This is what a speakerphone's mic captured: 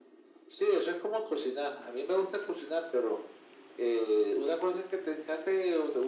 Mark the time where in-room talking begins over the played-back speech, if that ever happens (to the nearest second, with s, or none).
none